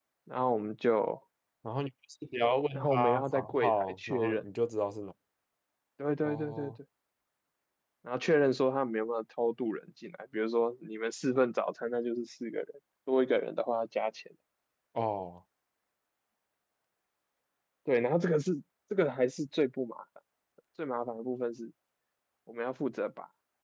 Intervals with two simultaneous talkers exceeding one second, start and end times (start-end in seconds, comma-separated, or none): 2.7-4.4